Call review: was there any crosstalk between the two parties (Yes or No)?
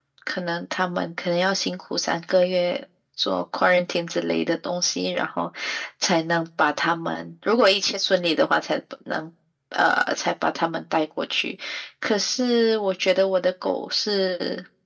No